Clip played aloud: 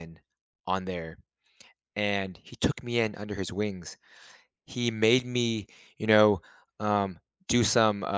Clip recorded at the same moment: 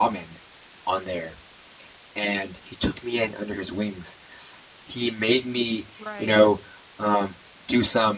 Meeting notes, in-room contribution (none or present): present